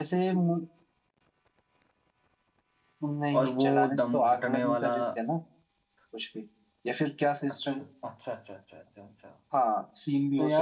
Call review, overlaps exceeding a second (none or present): present